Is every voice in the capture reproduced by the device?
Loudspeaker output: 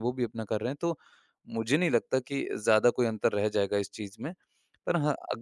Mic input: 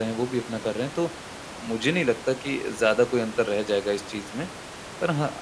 Yes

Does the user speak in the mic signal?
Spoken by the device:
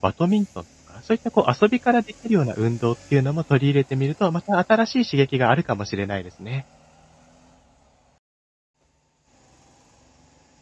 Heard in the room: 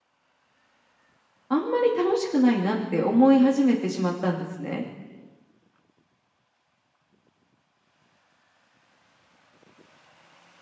Yes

